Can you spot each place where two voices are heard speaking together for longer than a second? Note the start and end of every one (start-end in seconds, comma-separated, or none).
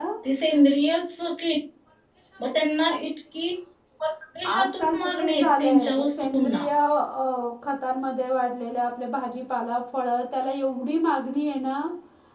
4.5-6.7